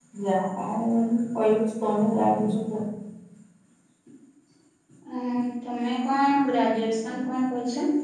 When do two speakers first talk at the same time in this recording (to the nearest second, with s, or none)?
none